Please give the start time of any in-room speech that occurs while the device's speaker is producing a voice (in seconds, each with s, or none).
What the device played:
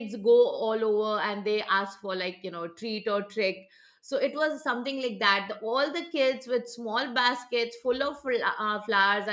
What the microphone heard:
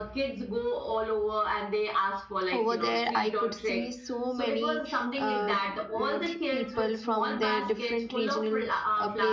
2.5 s